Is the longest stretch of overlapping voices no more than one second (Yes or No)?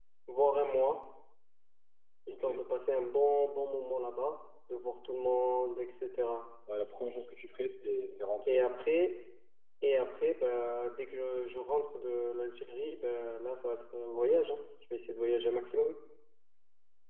Yes